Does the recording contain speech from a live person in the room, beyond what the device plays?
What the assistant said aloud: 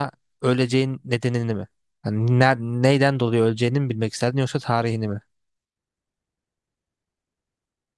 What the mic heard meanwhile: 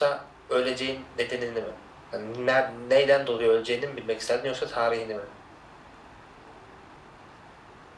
No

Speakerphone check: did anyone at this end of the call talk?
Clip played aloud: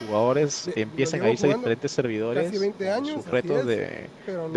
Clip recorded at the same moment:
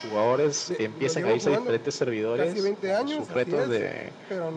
No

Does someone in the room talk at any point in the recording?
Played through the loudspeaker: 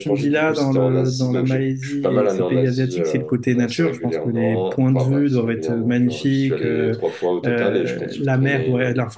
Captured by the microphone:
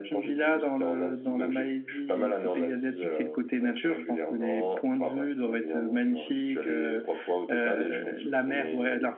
No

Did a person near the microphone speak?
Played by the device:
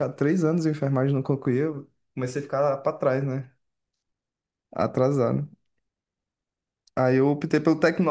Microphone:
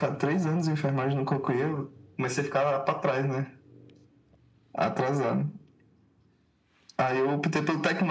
No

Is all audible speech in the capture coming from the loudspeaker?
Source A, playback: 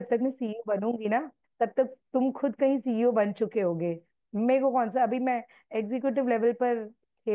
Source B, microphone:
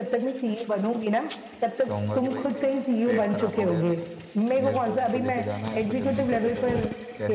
No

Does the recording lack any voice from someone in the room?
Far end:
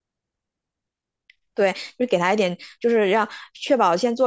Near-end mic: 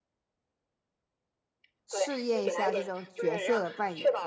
No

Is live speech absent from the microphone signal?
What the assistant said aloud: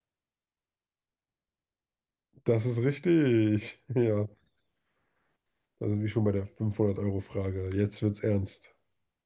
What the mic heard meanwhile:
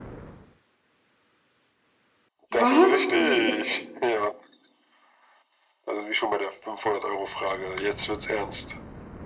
No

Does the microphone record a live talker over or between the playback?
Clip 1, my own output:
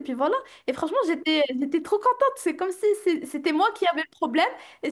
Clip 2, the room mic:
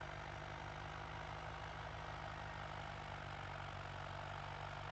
No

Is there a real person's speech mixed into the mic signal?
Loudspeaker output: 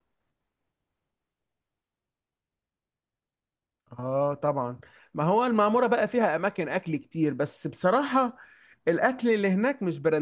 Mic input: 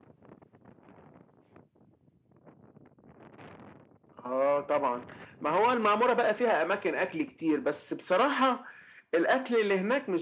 No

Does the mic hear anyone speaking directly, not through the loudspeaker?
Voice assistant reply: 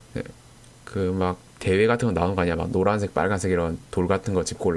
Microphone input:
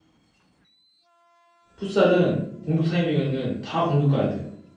Yes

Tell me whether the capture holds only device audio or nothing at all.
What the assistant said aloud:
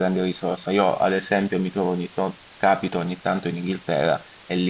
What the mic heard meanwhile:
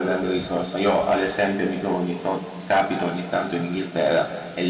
Yes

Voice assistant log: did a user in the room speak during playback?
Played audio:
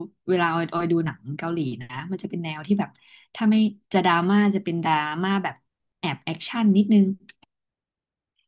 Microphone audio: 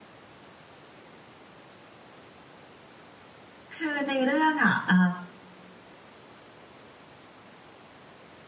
Yes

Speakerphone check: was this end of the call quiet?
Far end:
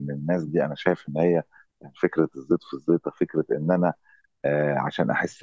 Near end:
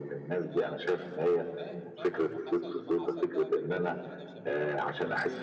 No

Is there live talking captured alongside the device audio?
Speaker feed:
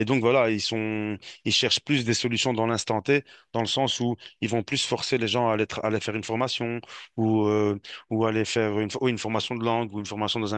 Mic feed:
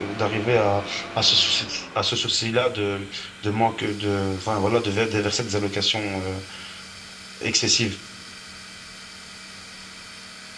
Yes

